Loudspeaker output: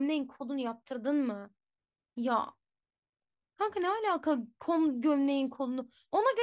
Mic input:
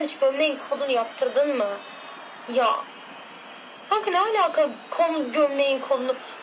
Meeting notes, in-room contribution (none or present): none